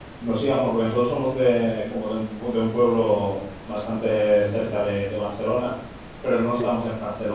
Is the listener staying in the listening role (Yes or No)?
Yes